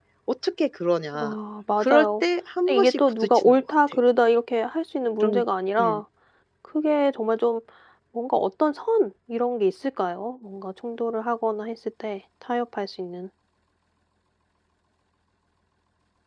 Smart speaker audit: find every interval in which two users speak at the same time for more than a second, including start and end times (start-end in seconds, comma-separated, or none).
2.7-4.0